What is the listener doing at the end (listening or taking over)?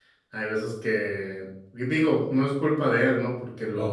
listening